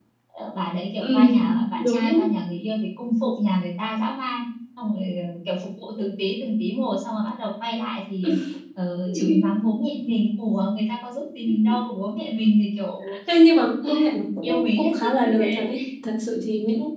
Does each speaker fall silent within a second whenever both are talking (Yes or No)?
No